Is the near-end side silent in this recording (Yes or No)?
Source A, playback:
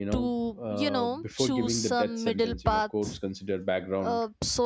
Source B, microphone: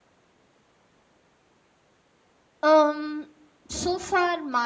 No